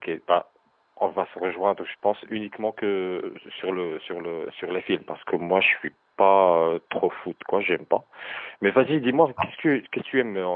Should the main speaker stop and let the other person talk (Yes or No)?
No